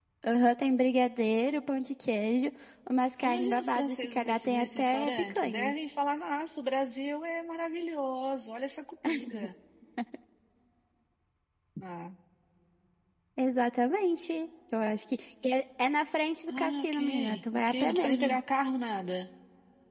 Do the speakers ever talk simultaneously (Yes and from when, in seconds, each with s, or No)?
Yes, from 3.2 s